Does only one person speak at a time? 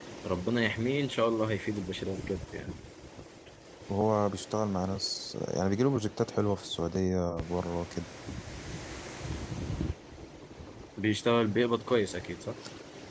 Yes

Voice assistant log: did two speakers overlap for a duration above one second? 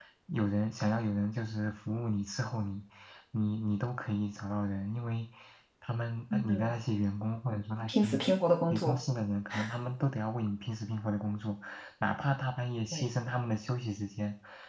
No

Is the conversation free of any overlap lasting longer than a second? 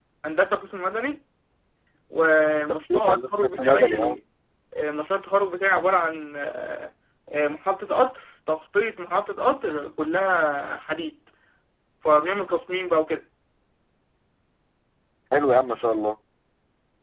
No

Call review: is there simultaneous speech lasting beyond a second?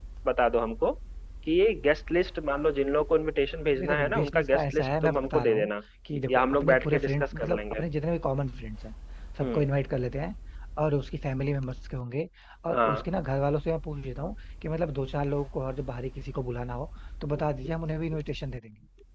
Yes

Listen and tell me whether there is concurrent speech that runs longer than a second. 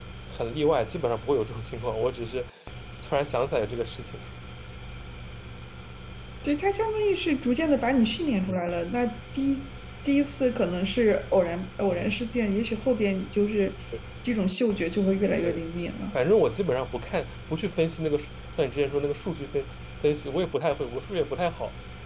No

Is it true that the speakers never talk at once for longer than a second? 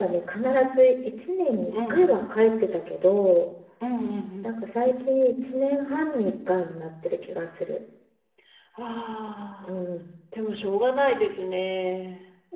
Yes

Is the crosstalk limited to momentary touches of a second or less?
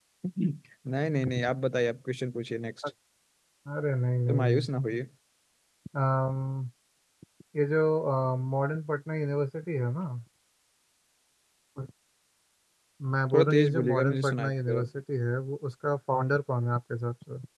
No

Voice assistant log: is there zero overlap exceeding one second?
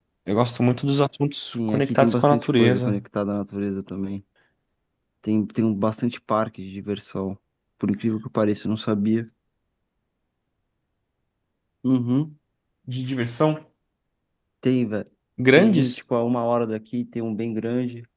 No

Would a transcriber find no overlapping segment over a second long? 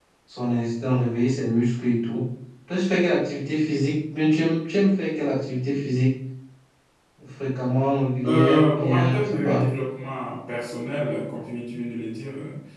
No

